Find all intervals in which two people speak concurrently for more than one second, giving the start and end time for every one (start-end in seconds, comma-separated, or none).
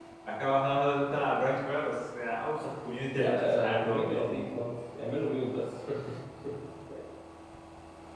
3.1-4.6